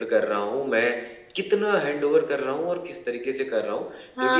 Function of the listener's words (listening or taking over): taking over